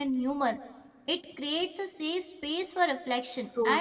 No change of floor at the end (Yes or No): Yes